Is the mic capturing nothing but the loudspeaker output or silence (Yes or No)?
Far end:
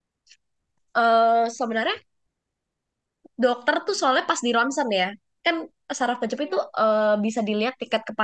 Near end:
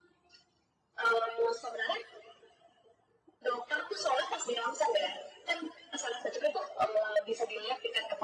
Yes